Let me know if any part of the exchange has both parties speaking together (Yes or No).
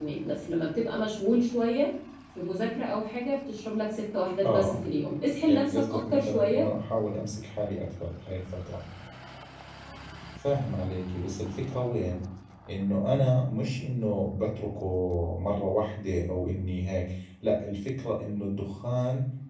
Yes